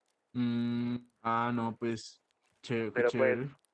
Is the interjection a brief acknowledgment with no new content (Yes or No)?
No